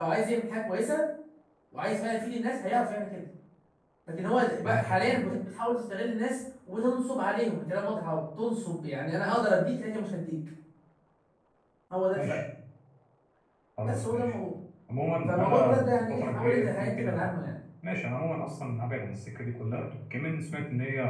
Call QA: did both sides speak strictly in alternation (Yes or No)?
No